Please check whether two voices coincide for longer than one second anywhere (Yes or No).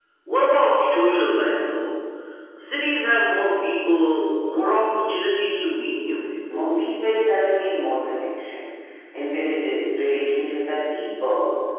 No